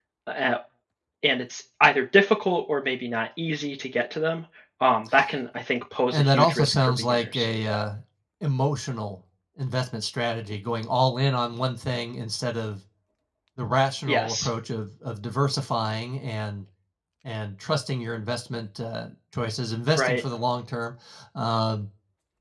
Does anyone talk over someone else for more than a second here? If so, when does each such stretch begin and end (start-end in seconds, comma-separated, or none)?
6.1-7.5